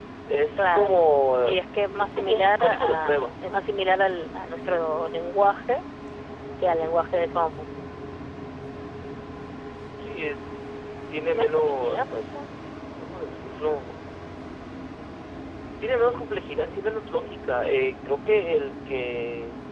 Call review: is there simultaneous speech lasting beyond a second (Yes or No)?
Yes